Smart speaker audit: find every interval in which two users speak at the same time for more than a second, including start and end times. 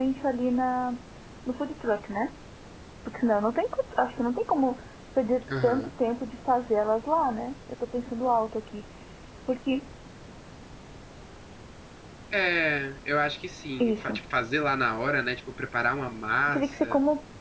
none

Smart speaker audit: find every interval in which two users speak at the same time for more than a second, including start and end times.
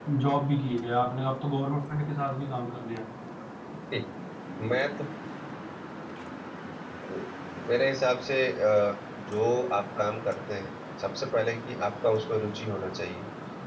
none

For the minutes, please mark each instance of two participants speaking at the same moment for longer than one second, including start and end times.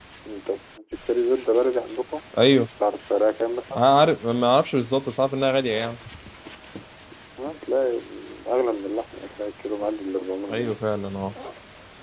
none

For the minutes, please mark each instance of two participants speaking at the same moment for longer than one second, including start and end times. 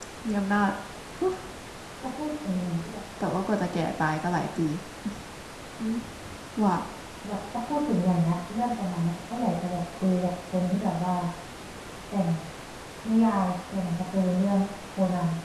none

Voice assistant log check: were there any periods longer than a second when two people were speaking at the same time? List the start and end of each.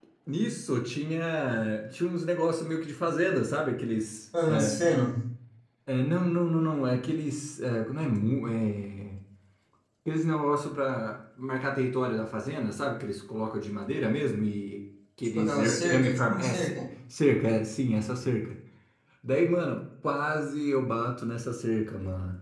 15.4-16.7

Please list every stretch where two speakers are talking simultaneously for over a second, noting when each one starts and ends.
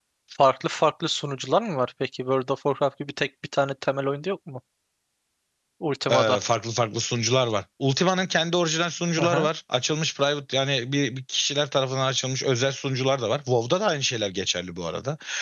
none

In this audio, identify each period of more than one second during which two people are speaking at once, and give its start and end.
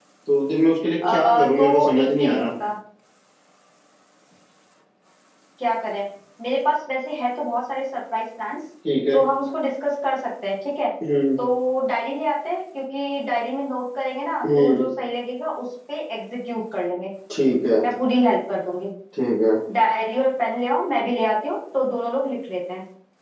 1.1-2.5

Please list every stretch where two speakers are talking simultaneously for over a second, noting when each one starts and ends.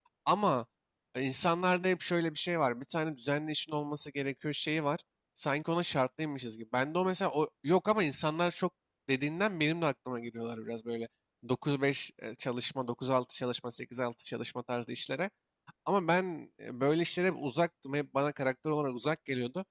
none

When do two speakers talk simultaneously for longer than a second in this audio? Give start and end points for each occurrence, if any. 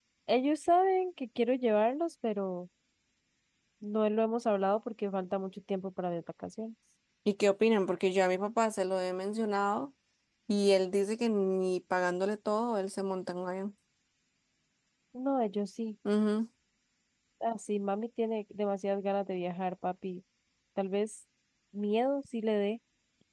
none

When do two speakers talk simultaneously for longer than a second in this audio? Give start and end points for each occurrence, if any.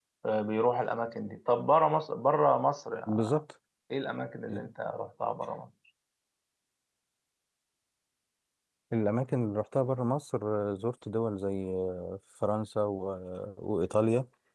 none

